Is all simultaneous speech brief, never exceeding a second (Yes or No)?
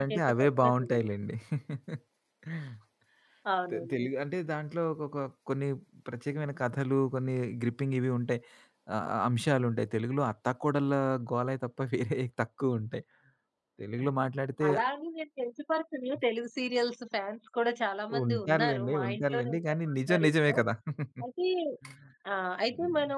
No